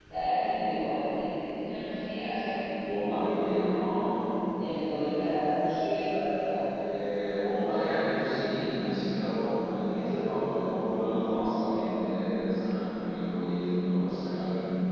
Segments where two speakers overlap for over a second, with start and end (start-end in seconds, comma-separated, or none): none